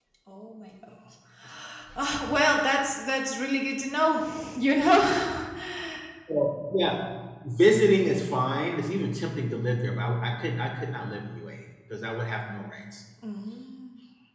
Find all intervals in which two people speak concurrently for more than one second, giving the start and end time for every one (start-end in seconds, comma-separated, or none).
none